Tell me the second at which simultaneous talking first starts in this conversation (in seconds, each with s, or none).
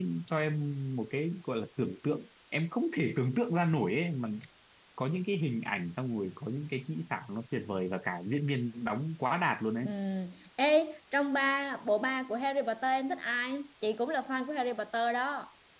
none